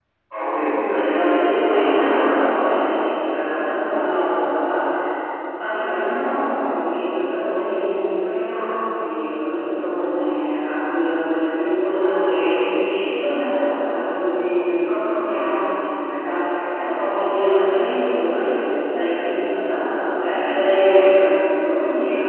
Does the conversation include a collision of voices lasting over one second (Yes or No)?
Yes